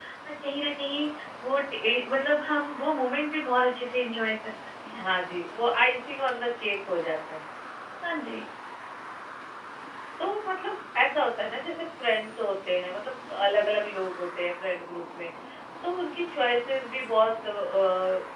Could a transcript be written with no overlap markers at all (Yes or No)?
Yes